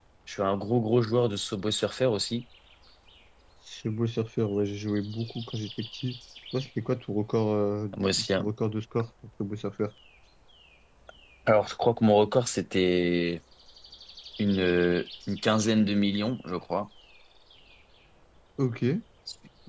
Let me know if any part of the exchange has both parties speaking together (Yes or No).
No